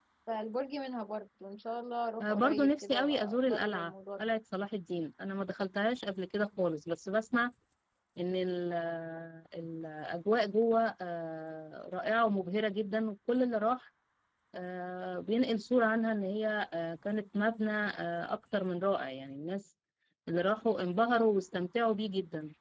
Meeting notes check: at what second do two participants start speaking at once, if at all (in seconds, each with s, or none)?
2.2 s